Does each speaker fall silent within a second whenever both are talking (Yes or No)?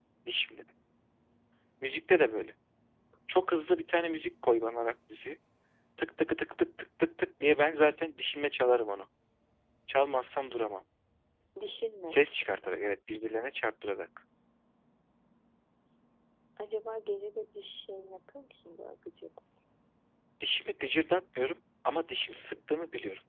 Yes